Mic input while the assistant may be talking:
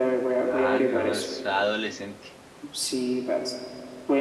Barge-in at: 0.4 s

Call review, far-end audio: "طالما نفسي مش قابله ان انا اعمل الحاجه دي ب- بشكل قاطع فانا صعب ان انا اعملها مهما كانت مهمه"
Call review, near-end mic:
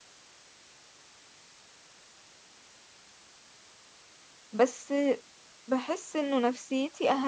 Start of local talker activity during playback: 4.5 s

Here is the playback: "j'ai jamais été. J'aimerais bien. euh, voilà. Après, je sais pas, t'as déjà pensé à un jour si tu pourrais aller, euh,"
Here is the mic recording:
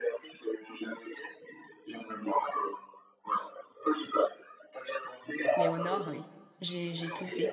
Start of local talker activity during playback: 5.6 s

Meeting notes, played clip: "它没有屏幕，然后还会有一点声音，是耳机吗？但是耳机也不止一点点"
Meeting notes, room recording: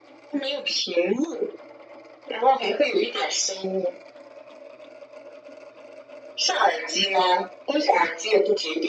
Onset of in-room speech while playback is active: none

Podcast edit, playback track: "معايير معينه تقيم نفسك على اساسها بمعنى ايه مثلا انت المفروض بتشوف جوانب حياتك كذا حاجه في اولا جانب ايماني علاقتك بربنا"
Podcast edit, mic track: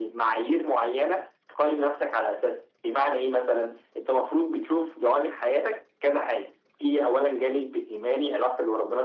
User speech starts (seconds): none

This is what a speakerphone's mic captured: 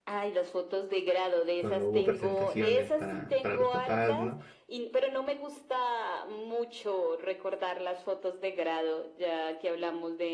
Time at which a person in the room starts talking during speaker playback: 1.6 s

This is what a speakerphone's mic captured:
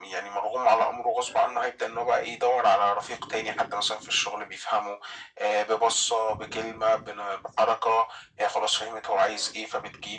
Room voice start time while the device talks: none

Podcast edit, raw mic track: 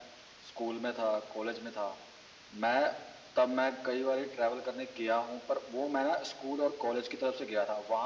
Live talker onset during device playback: none

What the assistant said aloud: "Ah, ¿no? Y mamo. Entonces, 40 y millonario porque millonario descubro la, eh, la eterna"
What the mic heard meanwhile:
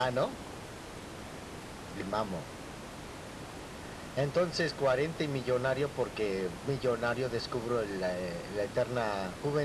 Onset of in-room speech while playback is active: none

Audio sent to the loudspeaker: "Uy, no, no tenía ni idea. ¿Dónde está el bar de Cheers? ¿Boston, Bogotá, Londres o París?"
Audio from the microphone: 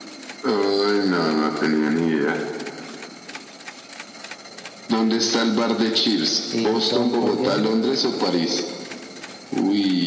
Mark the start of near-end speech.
6.5 s

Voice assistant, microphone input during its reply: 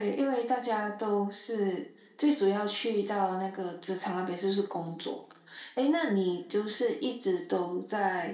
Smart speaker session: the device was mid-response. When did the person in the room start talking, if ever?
none

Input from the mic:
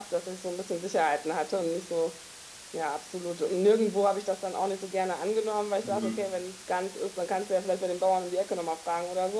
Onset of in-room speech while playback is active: 5.8 s

